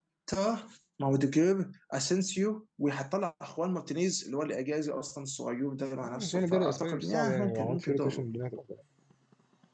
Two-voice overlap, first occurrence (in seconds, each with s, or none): 6.0 s